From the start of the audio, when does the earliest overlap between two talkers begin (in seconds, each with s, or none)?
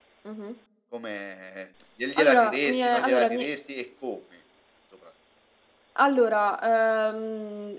2.2 s